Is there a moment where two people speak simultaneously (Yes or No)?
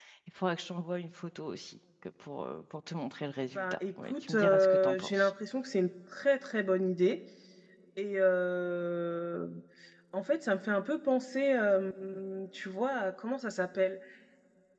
Yes